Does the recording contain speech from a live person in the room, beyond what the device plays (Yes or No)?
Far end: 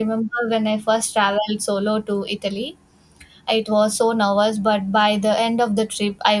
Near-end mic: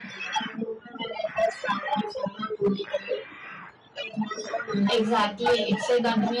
Yes